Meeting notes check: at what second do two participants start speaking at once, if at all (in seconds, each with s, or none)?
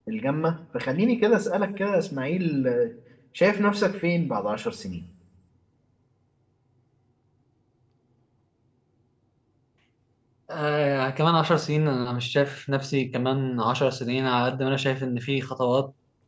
none